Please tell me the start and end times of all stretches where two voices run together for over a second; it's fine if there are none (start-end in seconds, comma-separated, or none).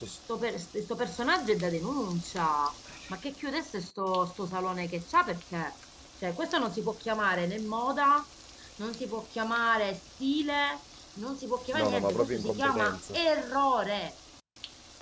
11.8-13.2